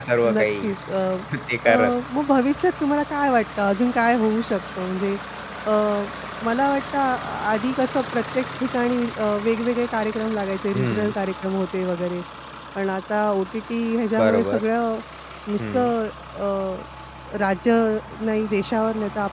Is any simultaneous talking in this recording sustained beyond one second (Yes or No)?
No